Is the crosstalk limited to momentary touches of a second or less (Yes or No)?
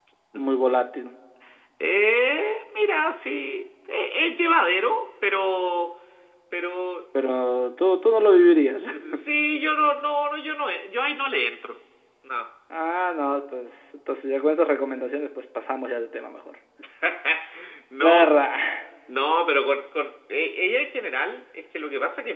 Yes